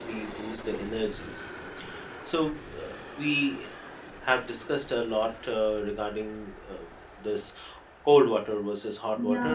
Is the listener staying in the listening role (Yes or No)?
No